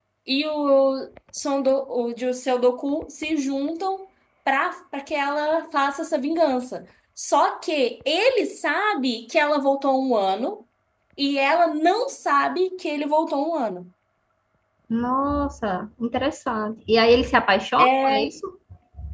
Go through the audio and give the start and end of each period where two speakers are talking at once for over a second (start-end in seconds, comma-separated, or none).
none